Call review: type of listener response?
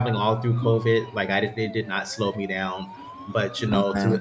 listening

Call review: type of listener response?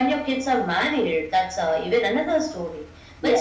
listening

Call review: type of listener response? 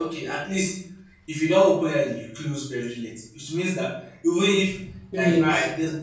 listening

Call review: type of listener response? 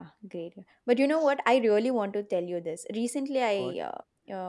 listening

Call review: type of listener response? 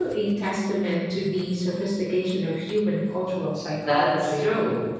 taking over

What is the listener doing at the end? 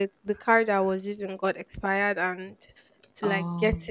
listening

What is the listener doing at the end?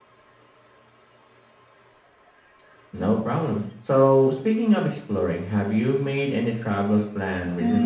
taking over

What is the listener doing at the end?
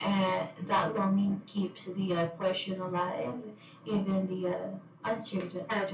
taking over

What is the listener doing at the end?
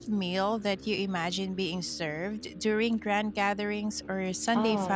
taking over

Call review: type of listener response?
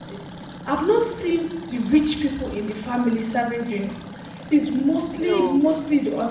listening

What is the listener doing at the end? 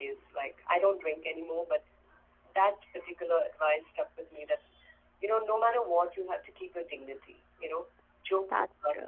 listening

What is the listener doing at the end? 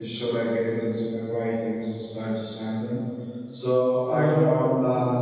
listening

